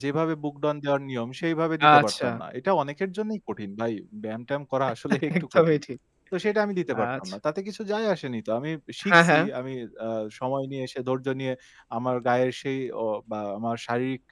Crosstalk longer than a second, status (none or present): none